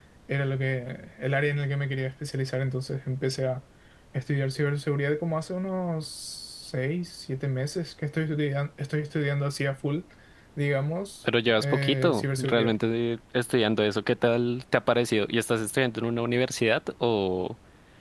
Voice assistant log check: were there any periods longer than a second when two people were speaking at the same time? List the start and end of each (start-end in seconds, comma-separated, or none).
11.5-12.7